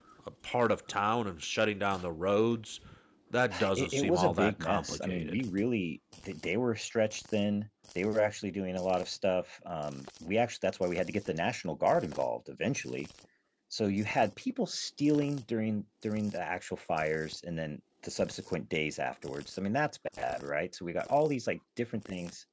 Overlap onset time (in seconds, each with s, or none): 3.8 s